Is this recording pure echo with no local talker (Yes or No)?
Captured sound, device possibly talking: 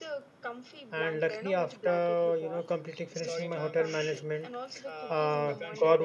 No